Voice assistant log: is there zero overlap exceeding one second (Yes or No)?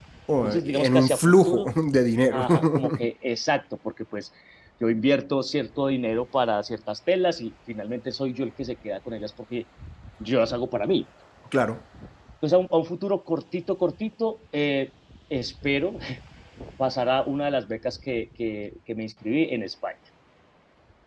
No